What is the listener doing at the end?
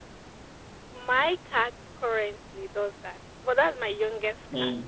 taking over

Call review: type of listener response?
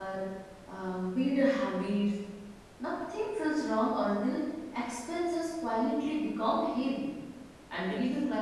listening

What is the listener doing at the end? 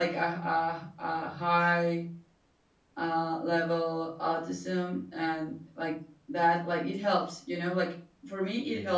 listening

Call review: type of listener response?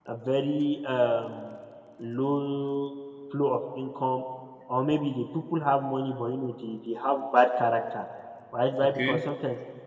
listening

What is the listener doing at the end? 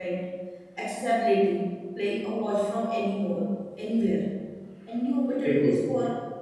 listening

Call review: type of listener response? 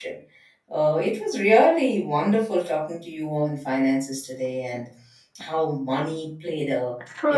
listening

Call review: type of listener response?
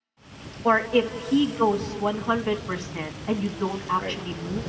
listening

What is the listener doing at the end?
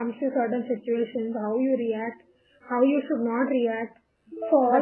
taking over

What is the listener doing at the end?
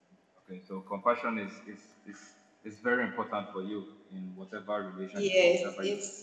taking over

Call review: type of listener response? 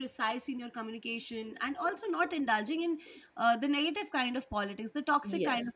listening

